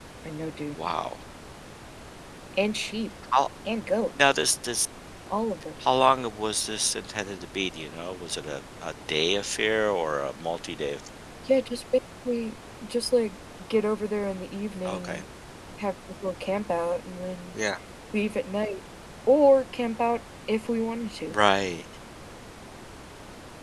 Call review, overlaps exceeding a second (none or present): none